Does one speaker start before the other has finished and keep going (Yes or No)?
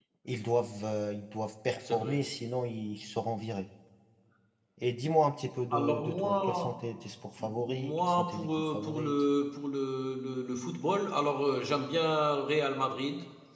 Yes